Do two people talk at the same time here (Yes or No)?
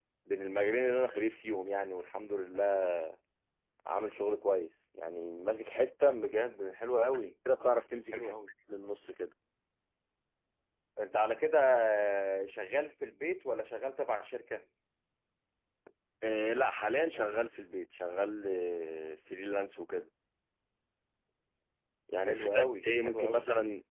Yes